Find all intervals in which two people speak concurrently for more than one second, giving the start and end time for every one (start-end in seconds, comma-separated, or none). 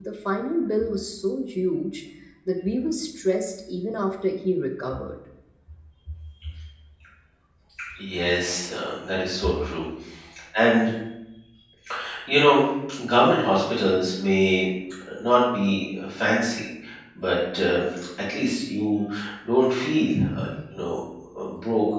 none